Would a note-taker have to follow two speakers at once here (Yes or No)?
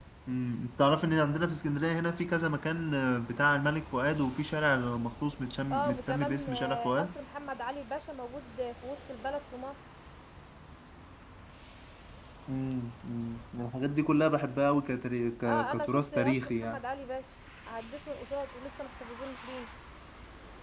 Yes